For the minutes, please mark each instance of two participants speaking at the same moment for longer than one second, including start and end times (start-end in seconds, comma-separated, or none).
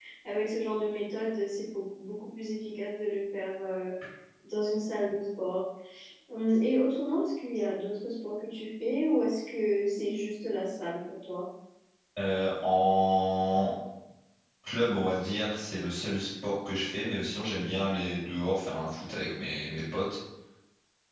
none